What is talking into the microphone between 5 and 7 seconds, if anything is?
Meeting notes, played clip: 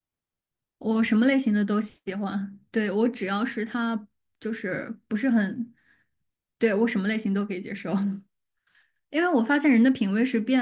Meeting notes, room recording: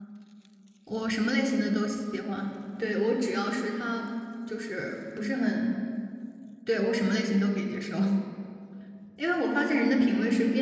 echo only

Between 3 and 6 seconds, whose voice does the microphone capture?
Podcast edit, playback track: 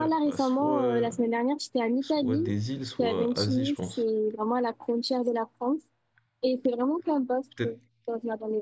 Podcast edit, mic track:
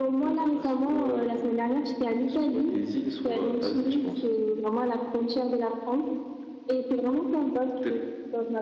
echo only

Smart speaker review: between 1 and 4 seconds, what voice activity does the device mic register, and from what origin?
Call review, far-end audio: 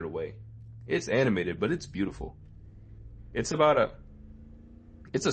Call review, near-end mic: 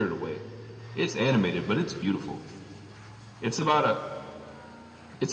echo only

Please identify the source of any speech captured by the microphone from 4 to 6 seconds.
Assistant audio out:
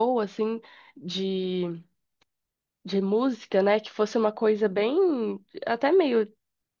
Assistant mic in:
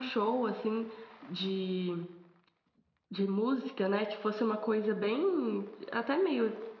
echo only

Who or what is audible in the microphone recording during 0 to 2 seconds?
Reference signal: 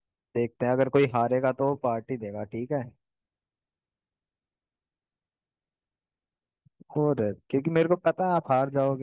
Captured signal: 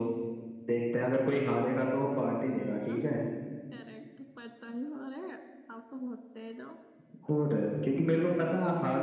echo only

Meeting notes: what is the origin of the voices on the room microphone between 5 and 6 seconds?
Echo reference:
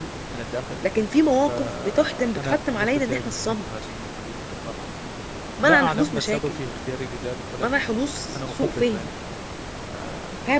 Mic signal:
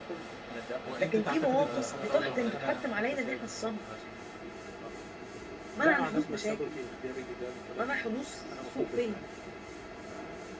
echo only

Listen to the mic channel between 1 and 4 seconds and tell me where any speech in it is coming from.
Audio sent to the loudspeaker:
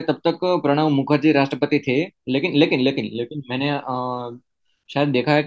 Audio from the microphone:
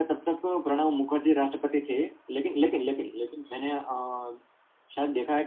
echo only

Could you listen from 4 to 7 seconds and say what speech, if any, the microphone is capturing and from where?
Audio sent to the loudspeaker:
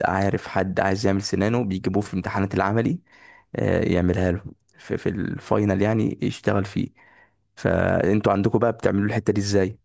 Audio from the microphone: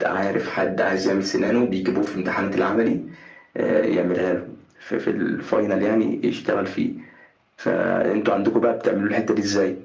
echo only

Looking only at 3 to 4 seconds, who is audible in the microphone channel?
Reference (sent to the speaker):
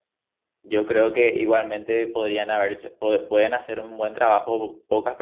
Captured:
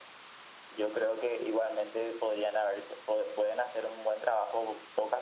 echo only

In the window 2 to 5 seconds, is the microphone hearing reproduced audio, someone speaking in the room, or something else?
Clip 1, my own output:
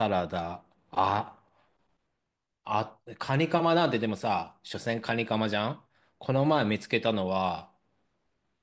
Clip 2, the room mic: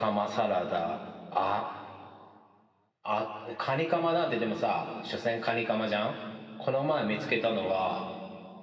echo only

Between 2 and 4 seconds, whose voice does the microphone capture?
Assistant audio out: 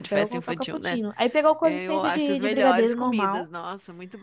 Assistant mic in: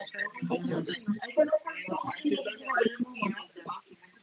echo only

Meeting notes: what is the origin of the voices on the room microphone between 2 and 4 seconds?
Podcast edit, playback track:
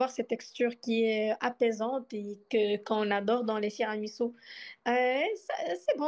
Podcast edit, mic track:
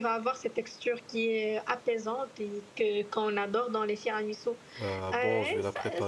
echo only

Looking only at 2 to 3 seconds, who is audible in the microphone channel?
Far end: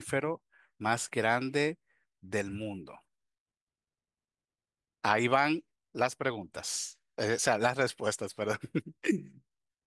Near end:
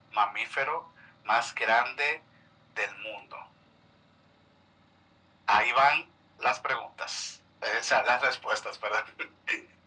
echo only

